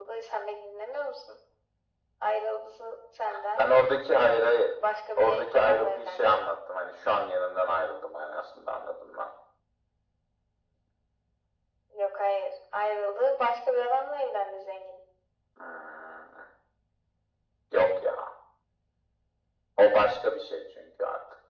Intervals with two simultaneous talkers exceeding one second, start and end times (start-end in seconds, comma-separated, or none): 5.2-6.4